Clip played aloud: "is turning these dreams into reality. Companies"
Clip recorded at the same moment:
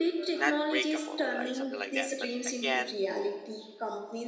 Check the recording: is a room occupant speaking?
Yes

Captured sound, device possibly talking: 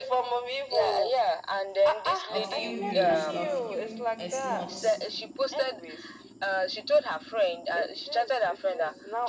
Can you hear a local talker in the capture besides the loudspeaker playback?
Yes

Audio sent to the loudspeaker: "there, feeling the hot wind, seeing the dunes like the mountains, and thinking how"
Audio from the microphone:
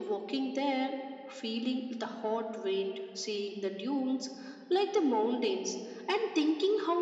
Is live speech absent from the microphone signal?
Yes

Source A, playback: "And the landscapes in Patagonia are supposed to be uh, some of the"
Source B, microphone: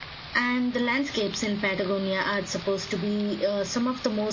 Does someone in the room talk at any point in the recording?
No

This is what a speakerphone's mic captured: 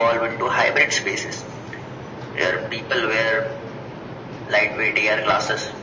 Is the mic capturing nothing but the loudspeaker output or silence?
Yes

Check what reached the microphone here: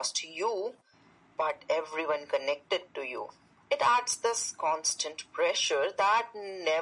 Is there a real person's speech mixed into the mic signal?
No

